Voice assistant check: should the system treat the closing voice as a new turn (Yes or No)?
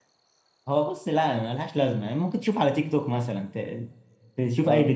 No